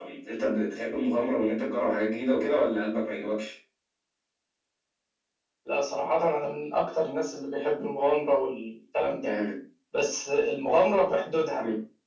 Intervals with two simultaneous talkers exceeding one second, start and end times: none

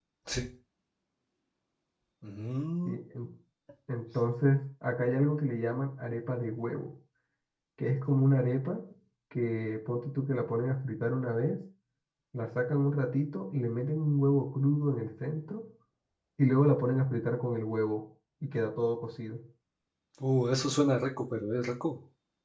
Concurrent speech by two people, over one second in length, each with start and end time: none

